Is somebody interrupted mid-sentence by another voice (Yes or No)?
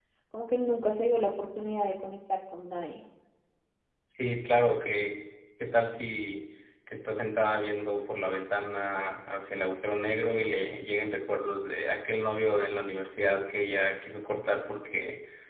No